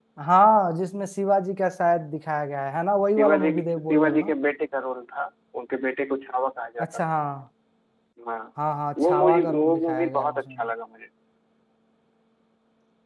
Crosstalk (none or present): present